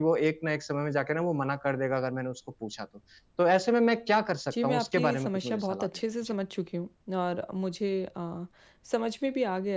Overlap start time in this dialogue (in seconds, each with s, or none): 4.5 s